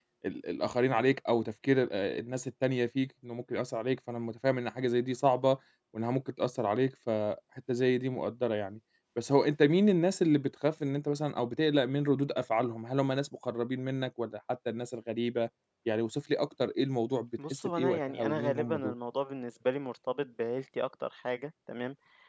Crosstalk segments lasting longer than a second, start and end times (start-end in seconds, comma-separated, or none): 17.5-18.9